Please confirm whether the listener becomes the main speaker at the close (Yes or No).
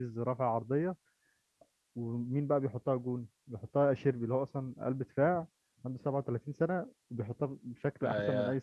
Yes